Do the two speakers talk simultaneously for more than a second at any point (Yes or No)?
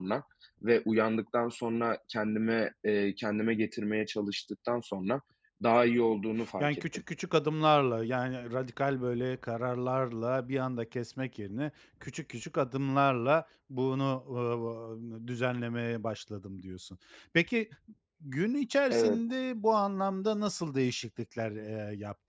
No